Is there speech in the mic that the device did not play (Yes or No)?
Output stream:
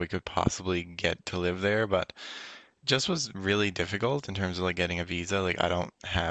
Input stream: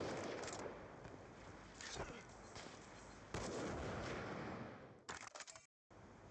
No